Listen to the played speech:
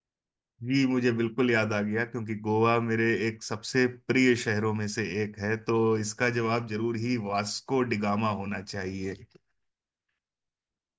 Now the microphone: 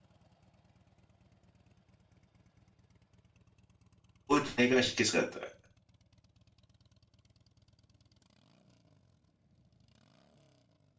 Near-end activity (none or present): present